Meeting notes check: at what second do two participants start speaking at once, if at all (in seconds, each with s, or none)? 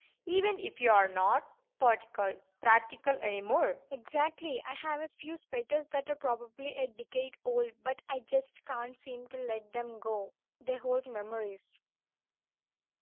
none